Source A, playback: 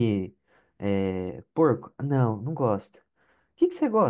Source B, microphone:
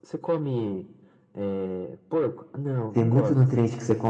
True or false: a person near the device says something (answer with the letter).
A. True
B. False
A